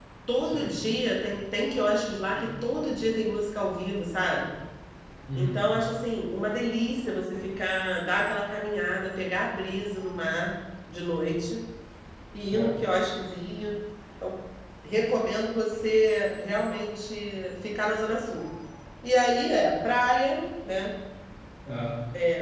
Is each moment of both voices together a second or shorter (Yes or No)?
Yes